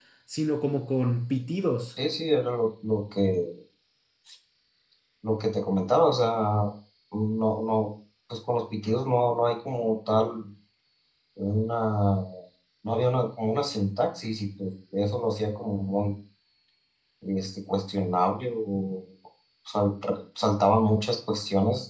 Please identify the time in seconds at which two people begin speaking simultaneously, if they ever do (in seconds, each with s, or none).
none